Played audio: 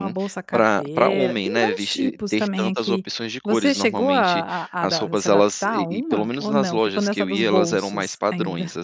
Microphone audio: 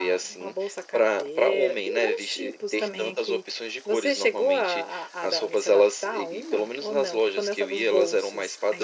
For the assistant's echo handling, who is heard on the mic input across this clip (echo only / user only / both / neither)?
both